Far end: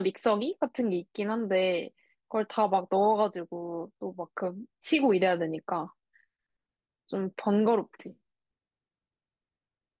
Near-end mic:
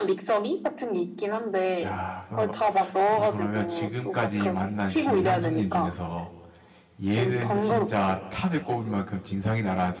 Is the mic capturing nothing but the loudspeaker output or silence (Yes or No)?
No